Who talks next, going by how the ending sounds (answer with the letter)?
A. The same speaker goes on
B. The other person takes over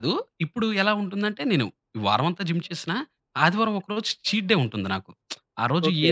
A